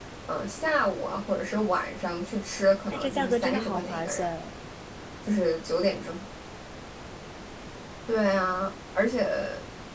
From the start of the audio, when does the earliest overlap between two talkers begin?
2.9 s

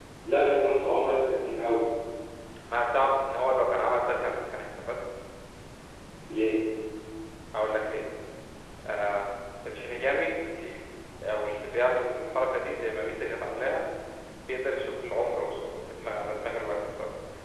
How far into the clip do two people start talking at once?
none

